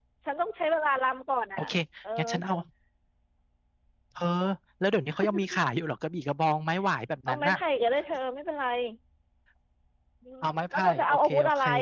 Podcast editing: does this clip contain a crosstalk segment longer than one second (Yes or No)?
Yes